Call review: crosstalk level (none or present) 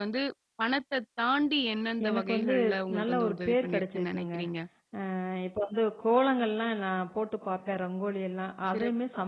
present